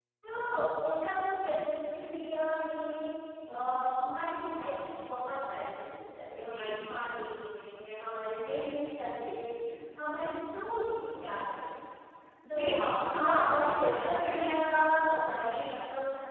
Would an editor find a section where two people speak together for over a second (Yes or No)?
Yes